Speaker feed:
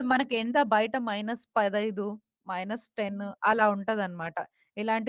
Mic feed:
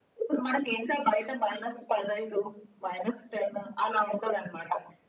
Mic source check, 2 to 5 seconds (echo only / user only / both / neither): echo only